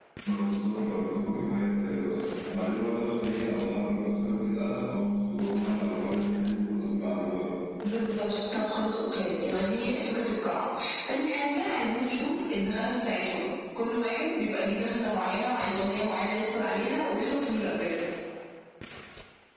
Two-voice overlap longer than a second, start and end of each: none

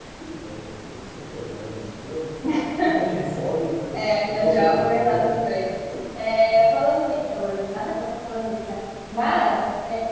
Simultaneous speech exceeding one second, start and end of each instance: 3.9-5.4

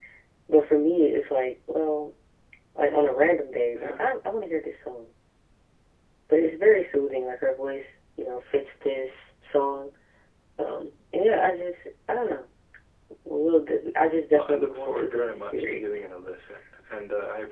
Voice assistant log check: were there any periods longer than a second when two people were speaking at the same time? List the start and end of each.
14.3-15.9

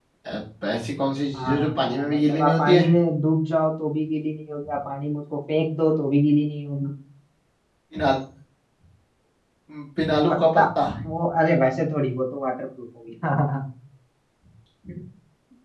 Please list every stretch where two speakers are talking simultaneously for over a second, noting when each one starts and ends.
1.4-2.9

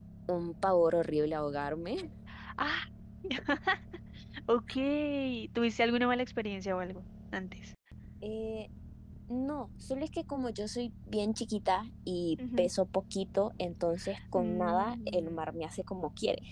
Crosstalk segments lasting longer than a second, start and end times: 14.3-15.6

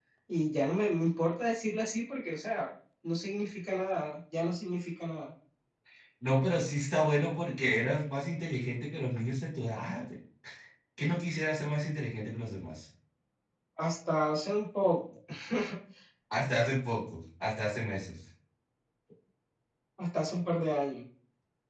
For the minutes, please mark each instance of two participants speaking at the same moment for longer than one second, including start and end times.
none

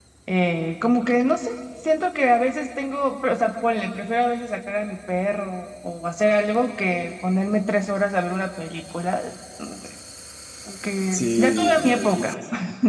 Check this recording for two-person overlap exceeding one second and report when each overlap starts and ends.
11.1-12.4

